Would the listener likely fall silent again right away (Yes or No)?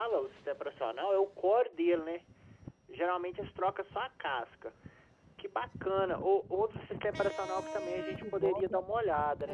Yes